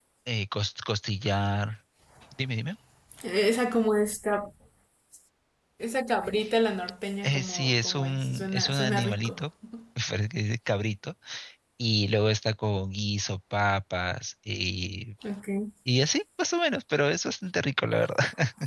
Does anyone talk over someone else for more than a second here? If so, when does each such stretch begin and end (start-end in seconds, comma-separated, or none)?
7.2-9.4